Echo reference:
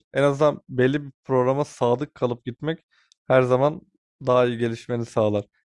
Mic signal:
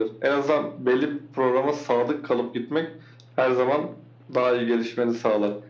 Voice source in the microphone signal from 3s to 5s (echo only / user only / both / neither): echo only